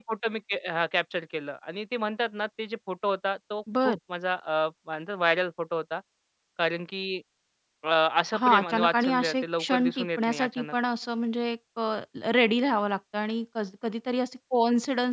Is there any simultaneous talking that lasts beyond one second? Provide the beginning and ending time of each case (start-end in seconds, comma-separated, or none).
8.4-10.7